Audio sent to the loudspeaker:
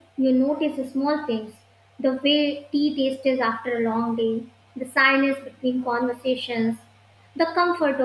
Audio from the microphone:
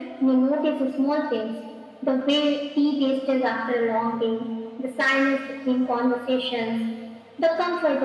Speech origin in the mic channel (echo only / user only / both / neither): echo only